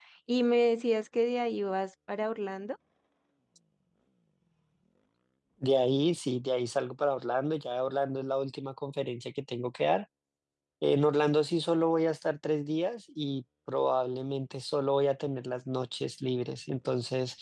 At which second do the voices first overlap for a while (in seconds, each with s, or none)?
none